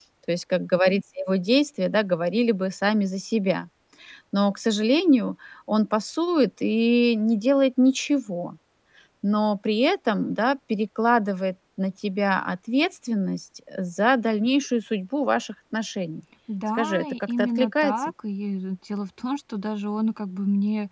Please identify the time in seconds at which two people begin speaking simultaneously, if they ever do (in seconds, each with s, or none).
16.8 s